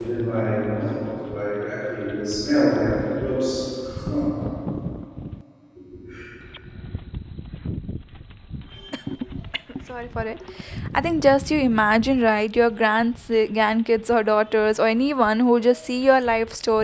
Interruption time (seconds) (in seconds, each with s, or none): none